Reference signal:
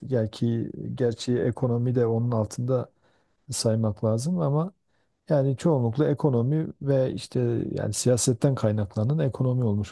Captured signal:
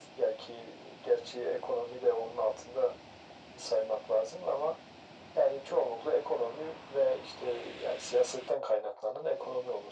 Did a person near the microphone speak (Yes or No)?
No